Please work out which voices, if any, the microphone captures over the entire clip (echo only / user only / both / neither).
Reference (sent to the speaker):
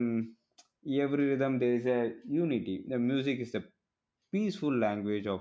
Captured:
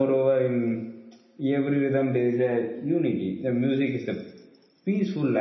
echo only